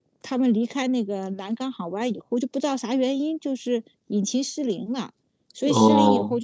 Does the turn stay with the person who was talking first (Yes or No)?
Yes